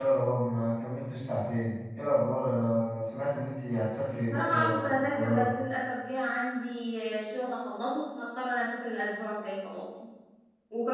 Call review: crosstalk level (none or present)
present